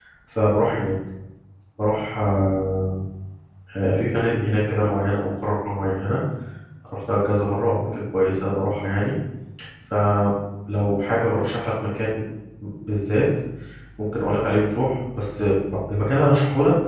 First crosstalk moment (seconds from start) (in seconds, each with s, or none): none